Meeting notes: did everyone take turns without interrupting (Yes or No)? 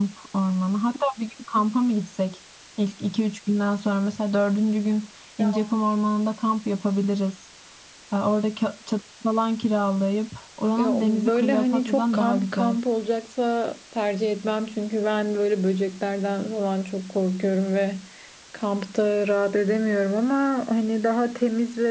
No